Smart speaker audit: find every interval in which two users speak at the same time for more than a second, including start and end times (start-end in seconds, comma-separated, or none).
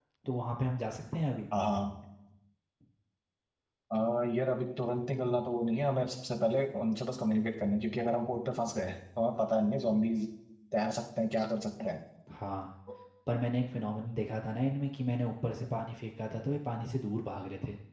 none